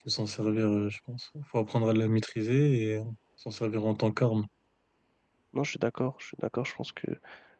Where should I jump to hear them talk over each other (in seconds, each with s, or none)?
none